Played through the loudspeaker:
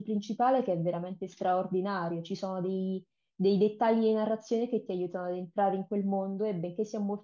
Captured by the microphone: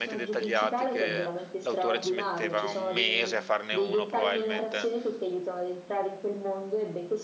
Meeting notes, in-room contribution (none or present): present